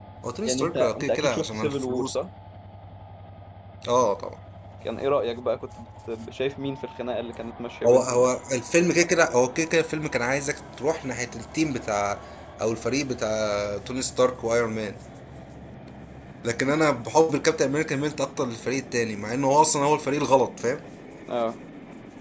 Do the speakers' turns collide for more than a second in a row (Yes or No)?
Yes